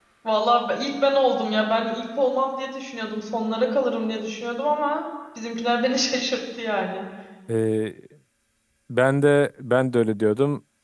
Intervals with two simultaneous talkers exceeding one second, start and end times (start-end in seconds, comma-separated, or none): none